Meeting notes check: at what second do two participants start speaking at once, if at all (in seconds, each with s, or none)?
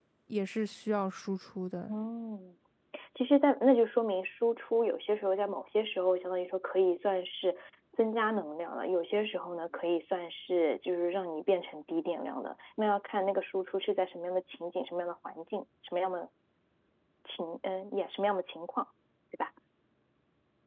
none